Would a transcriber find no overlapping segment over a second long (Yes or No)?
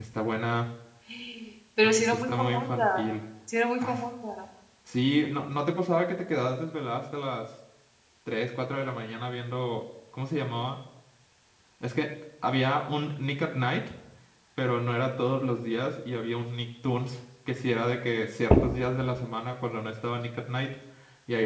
No